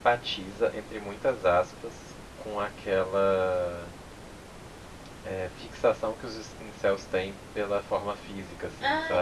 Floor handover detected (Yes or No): Yes